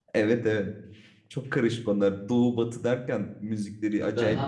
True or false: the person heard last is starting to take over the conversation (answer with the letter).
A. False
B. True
B